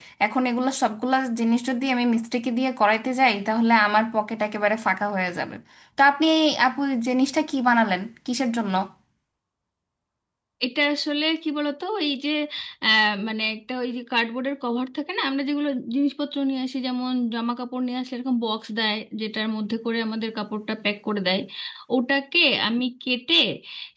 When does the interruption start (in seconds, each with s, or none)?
none